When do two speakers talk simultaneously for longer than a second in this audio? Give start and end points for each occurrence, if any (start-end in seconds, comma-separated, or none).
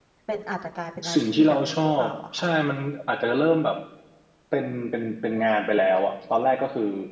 1.1-2.4